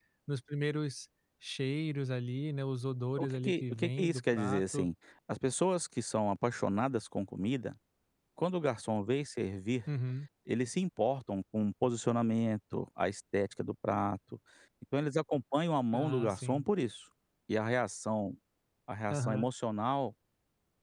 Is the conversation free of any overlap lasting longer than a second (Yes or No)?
No